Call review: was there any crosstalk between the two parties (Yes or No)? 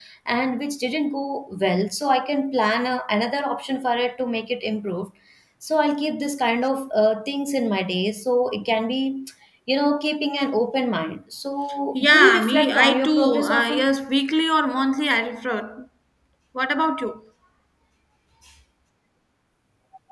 Yes